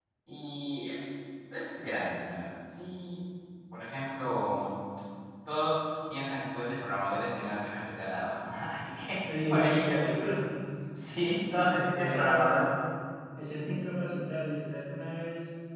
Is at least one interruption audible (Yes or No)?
Yes